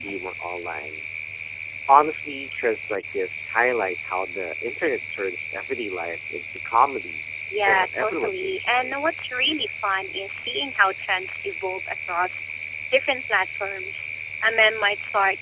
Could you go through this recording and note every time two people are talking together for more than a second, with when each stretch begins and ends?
7.7-9.0

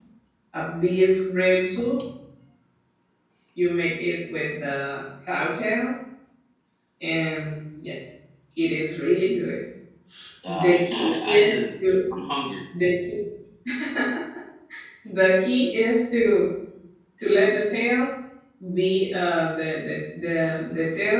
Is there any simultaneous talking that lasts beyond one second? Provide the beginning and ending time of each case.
10.6-11.9

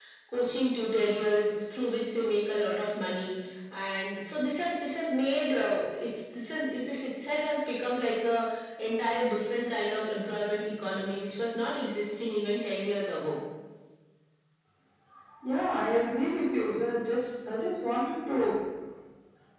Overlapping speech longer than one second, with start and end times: none

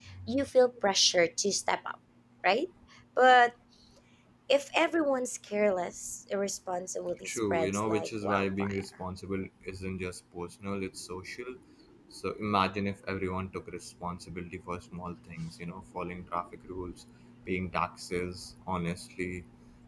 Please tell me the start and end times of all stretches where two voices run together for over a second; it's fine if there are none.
7.2-8.8

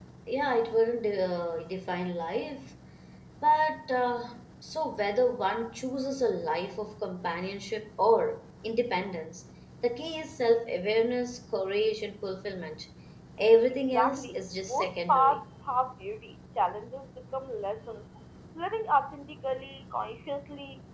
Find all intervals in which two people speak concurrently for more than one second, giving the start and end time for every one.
13.9-15.4

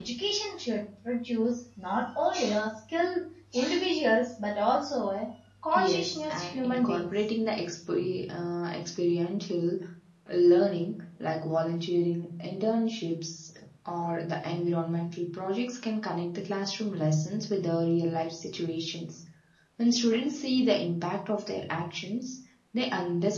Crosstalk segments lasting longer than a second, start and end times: 5.7-7.3

